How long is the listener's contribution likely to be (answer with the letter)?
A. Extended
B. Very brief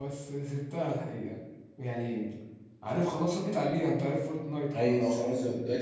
A